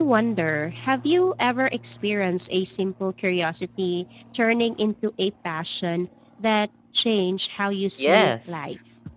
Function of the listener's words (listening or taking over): taking over